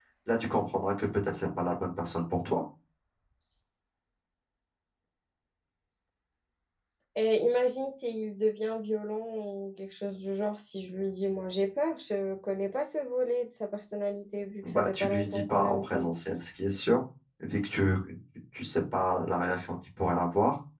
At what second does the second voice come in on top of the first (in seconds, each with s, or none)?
14.6 s